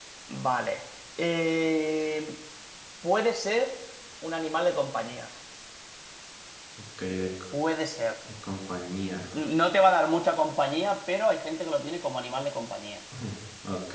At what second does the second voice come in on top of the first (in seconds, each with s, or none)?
none